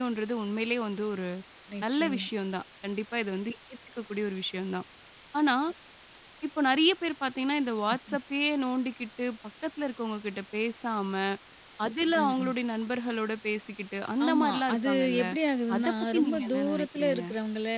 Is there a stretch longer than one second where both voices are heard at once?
Yes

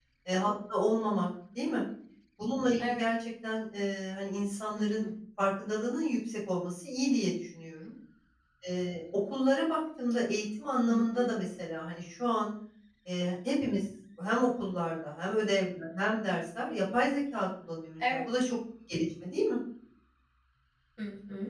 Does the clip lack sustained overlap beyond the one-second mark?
Yes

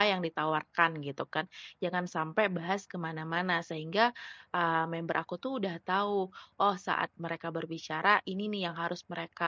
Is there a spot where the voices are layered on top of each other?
No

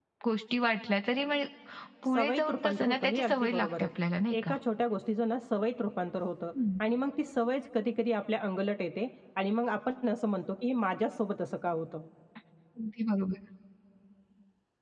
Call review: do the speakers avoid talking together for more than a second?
No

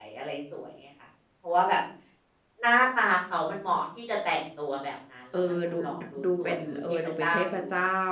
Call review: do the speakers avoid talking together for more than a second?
No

